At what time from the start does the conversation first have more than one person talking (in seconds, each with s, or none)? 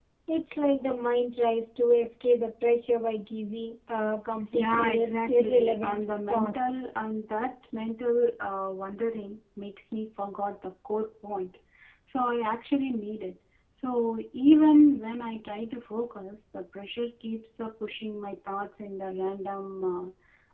4.5 s